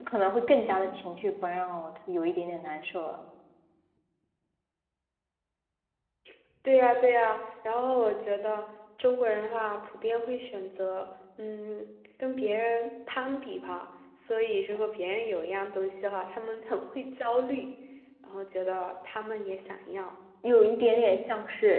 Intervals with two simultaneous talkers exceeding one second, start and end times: none

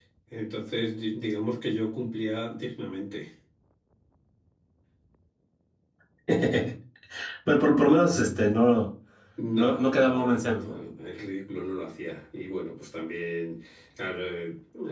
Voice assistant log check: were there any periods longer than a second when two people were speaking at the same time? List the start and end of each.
9.5-10.8

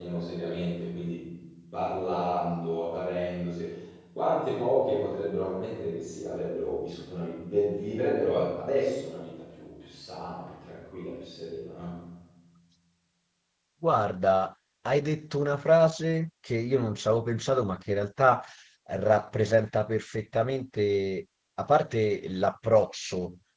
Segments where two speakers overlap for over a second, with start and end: none

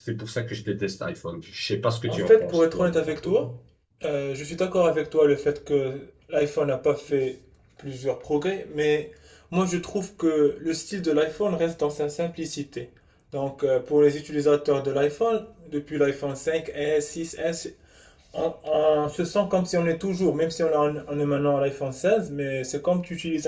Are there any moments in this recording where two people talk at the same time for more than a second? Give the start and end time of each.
2.1-3.4

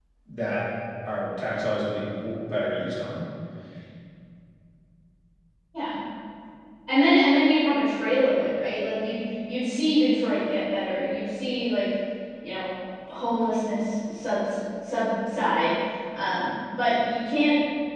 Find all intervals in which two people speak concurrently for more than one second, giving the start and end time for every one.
none

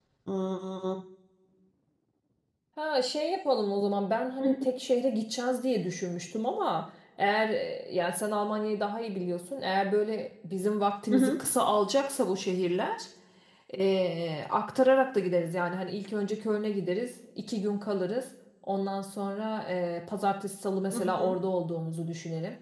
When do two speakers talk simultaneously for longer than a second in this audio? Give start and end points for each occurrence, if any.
none

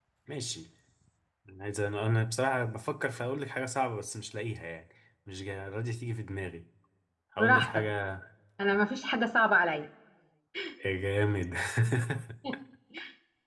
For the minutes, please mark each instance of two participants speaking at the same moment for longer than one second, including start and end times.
none

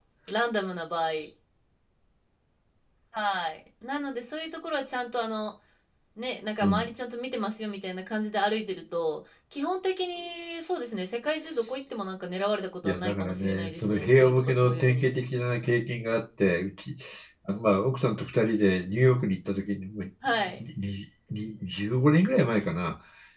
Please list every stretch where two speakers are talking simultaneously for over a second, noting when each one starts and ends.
12.8-15.1

